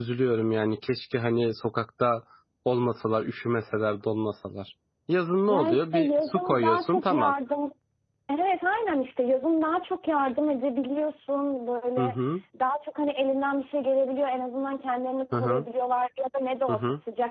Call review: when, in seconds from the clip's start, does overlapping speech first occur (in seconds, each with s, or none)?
5.5 s